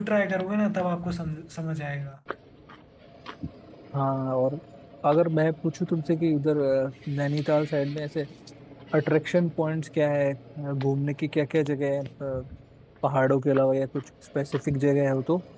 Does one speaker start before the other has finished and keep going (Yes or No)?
No